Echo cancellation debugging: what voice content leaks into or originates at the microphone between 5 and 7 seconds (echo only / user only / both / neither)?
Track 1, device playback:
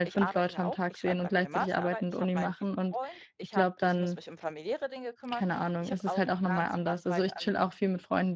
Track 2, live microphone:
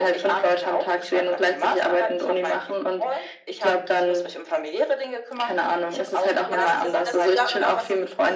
both